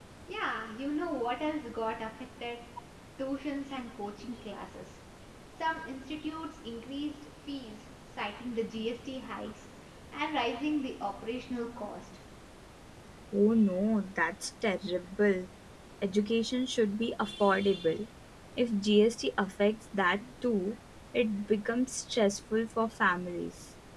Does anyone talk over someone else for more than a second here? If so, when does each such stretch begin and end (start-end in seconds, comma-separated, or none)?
none